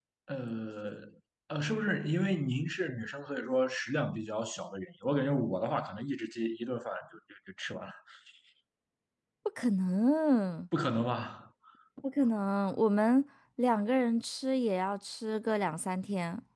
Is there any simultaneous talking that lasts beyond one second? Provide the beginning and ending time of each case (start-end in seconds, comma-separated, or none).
none